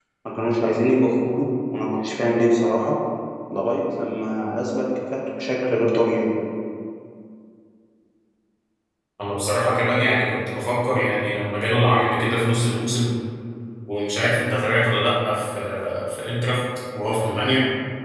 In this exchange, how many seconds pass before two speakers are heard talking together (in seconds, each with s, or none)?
none